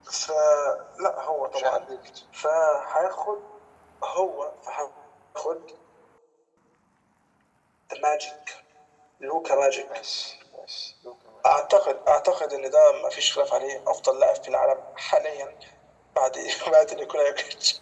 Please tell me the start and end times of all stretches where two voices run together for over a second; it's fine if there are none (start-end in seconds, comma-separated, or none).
none